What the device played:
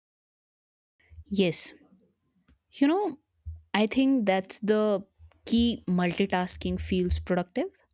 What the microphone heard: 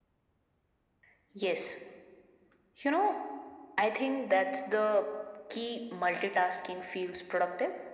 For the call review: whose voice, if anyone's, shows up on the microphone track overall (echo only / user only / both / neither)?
echo only